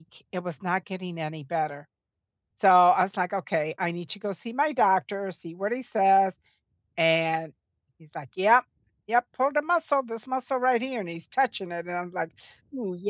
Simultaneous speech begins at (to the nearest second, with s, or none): none